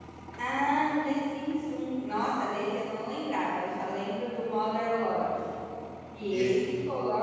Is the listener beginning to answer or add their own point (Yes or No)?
No